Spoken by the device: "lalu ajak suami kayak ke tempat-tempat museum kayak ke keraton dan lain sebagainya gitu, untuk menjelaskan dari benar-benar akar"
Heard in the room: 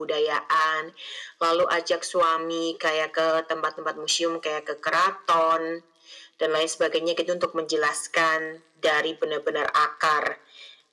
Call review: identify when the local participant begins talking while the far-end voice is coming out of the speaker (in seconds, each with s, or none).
none